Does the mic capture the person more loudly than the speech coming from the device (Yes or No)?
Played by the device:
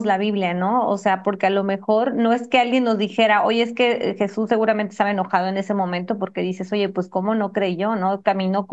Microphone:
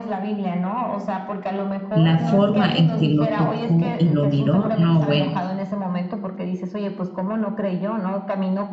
Yes